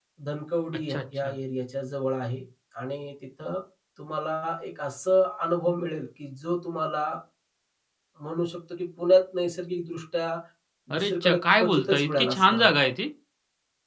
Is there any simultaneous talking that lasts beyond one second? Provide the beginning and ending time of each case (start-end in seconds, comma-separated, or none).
11.0-12.8